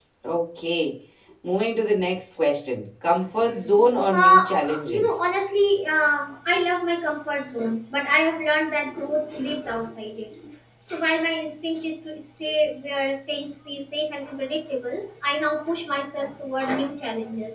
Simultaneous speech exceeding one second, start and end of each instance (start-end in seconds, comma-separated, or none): 3.6-5.3